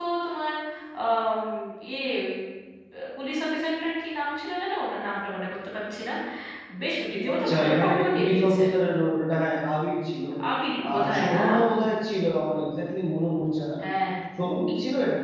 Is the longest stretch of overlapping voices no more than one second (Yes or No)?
No